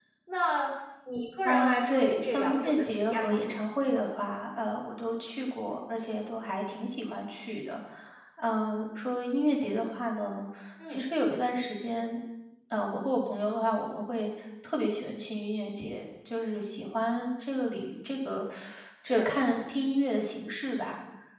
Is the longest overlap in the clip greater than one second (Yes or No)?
Yes